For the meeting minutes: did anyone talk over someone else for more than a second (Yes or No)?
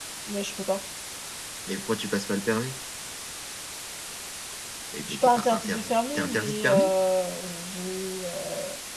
Yes